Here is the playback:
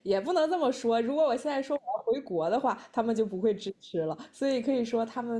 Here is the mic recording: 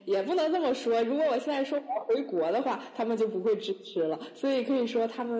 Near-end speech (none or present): none